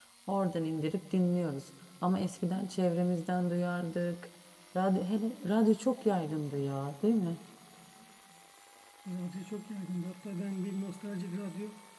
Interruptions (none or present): none